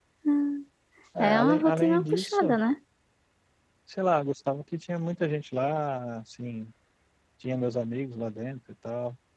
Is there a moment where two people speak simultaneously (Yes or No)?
Yes